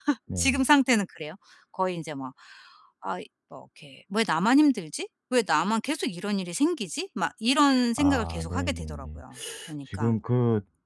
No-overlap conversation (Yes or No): No